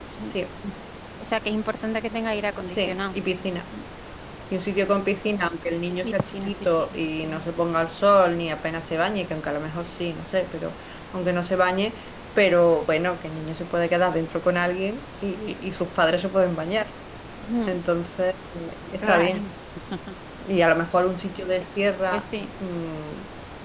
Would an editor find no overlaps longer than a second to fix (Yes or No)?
No